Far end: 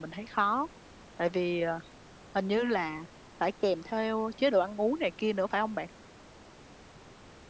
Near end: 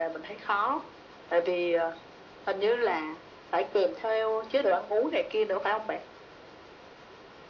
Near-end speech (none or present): none